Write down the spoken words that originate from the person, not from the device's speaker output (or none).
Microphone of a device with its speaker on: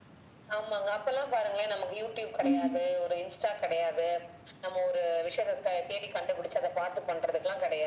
ம்.